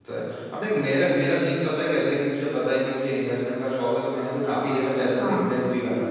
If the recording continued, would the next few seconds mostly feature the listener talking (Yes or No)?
No